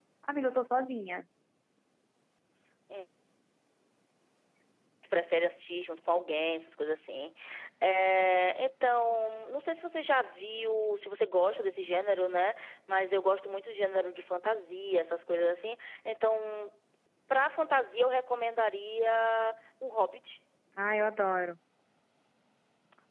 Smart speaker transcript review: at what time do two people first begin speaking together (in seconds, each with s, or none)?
none